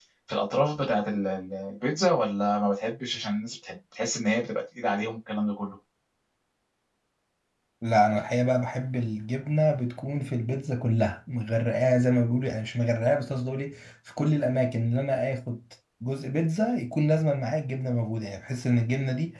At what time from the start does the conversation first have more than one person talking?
none

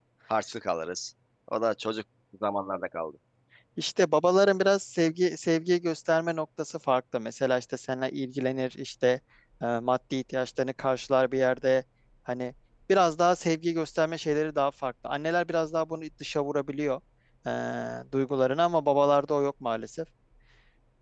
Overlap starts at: none

